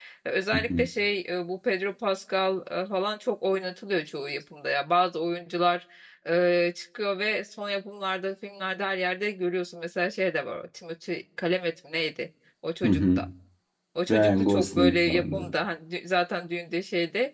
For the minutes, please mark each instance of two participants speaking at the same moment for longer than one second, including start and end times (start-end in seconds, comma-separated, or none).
14.1-15.5